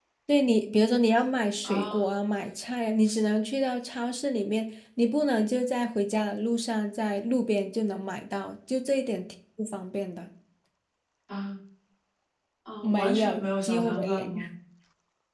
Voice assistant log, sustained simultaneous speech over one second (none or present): present